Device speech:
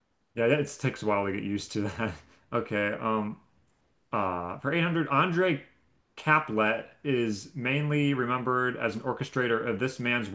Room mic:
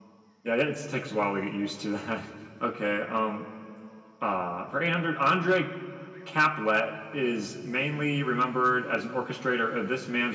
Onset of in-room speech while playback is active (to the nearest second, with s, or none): none